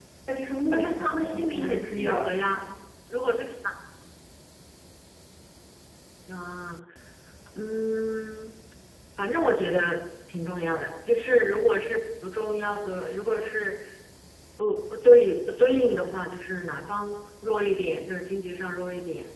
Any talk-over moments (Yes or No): Yes